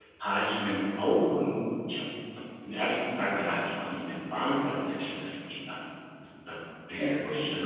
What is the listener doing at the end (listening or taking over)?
listening